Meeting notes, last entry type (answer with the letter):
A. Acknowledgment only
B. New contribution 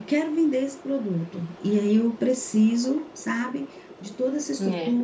A